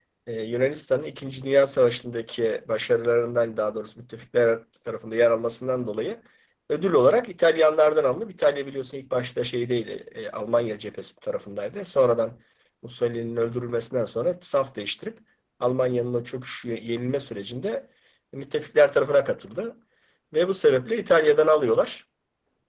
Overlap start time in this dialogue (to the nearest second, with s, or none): none